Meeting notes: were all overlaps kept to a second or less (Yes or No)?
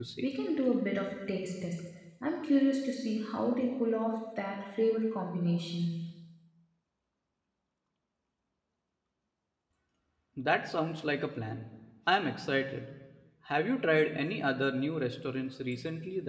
Yes